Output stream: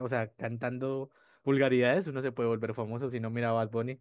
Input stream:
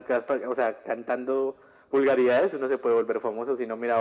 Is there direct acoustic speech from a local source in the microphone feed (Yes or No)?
No